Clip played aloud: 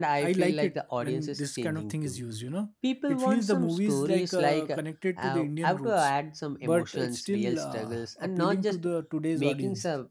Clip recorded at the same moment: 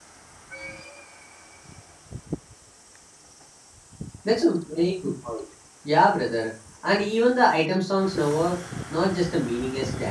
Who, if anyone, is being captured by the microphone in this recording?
user only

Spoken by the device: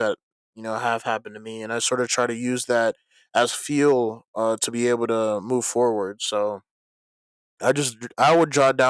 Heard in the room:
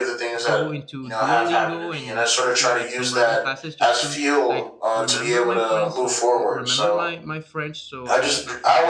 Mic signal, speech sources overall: both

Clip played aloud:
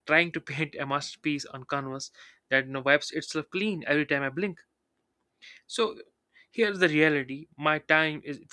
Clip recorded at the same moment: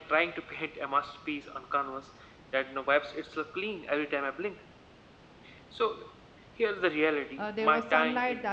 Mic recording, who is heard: both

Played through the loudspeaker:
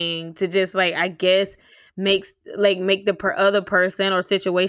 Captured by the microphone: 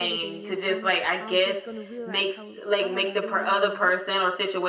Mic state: both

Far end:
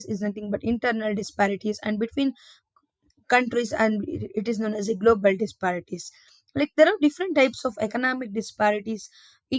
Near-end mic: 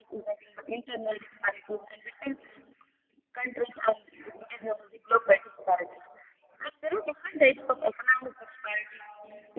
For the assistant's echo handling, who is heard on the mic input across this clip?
echo only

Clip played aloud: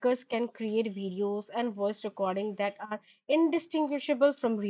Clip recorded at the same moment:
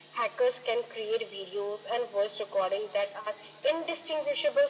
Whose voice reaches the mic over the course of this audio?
echo only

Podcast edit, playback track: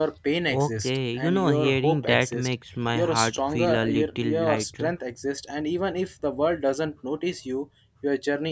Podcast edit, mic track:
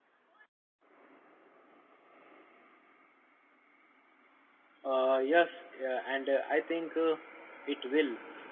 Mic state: user only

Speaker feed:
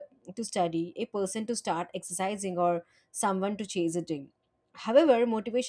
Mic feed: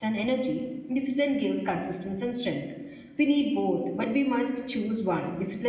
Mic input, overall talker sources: user only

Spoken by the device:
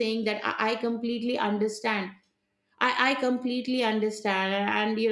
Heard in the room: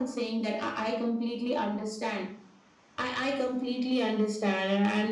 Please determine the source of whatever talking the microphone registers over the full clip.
echo only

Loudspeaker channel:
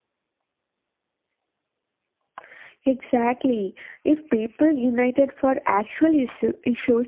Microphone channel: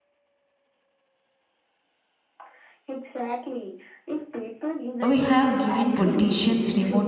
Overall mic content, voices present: both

